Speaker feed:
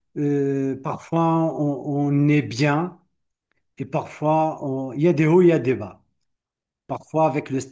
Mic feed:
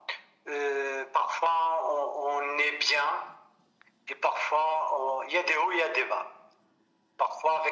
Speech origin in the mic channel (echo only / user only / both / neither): echo only